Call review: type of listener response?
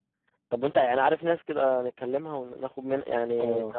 taking over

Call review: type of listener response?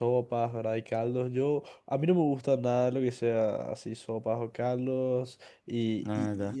listening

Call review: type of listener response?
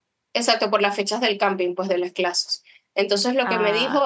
listening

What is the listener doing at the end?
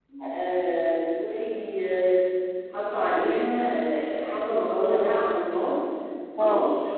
listening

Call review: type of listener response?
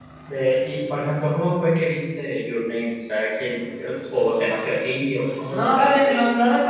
taking over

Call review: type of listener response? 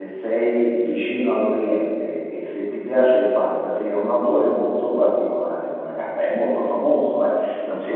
taking over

